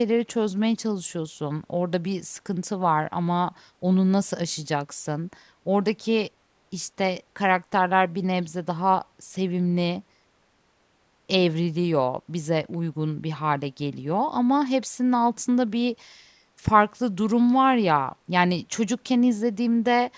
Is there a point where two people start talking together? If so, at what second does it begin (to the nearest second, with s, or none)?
none